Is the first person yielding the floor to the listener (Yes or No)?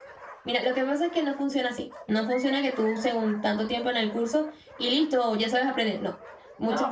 Yes